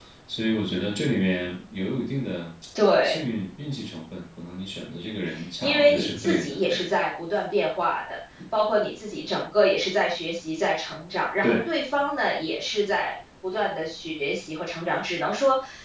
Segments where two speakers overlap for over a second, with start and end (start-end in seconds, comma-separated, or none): 5.6-6.9